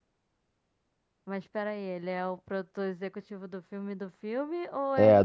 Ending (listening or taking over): taking over